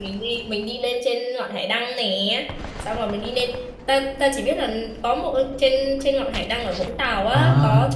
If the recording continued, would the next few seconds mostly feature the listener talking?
Yes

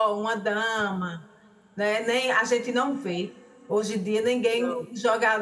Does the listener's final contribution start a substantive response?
No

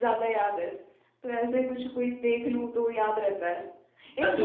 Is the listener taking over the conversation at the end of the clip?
Yes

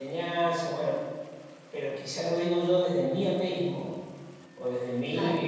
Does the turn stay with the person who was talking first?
Yes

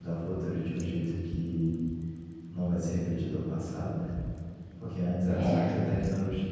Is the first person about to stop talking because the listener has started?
No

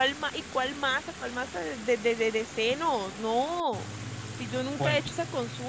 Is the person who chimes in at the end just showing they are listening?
Yes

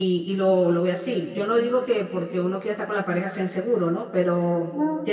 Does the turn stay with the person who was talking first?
Yes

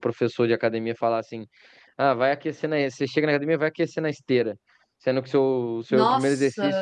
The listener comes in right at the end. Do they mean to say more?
No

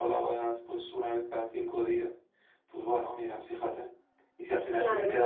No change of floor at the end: Yes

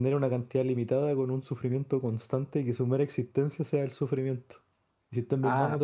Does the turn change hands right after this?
No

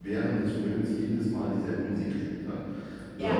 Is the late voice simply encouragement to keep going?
Yes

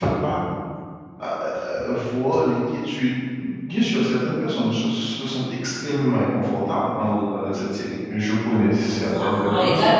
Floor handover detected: Yes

